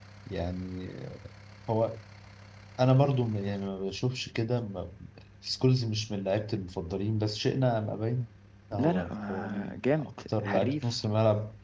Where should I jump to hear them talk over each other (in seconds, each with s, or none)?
8.8 s